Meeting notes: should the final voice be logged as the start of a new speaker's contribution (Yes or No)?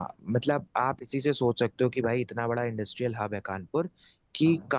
No